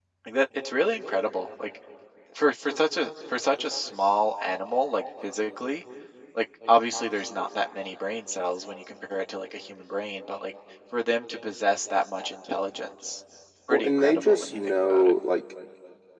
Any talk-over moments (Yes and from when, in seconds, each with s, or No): Yes, from 13.7 s